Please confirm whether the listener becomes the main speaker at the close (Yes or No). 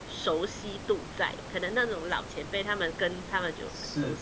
No